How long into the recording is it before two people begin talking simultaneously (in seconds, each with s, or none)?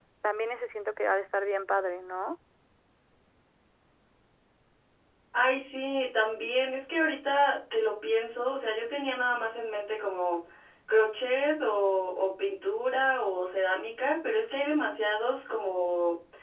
none